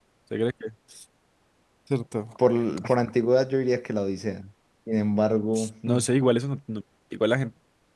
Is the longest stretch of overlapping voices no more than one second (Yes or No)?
Yes